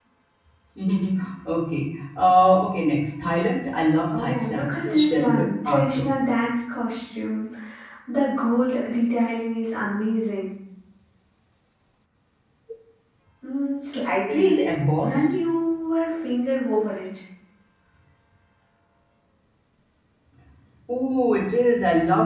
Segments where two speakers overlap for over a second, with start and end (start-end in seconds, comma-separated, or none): 4.2-6.1